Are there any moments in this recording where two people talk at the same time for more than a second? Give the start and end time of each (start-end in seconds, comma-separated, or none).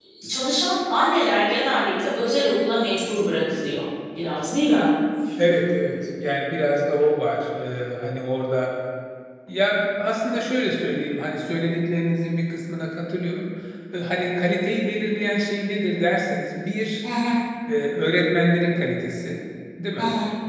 none